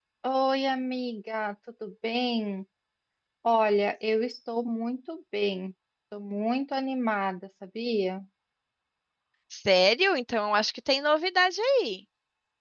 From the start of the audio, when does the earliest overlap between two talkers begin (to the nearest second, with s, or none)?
none